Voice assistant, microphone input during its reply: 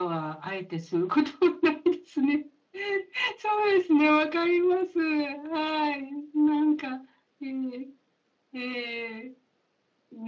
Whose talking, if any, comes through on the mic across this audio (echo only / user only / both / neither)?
echo only